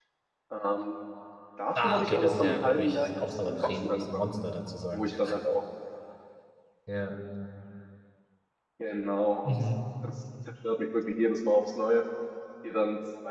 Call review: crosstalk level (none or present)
present